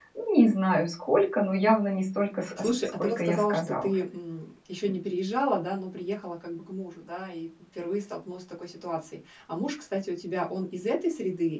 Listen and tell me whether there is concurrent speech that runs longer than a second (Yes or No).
Yes